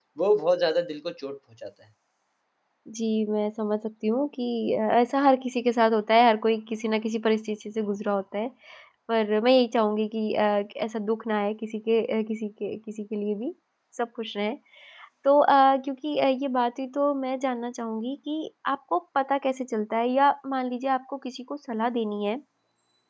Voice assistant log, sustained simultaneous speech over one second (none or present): none